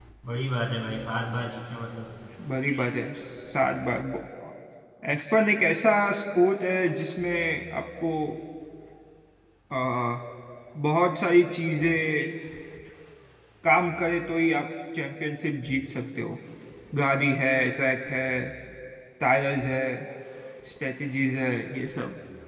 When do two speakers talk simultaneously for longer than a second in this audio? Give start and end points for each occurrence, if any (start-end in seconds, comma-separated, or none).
none